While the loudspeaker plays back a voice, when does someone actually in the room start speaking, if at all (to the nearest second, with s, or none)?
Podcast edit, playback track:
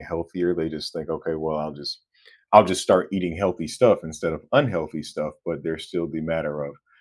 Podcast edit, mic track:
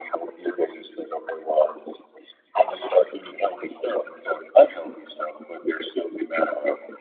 none